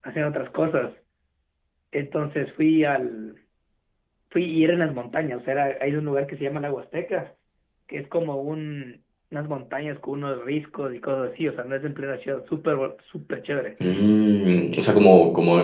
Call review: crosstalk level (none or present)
none